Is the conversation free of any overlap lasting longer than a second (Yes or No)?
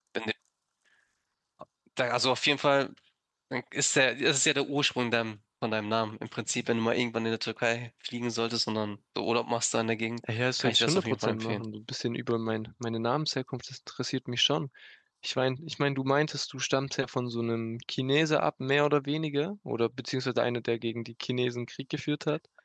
No